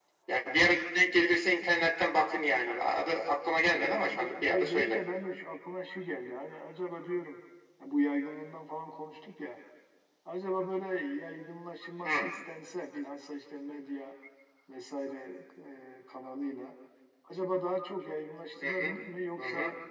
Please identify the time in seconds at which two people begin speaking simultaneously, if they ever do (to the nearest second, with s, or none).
4 s